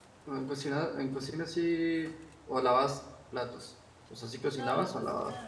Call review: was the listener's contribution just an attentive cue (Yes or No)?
No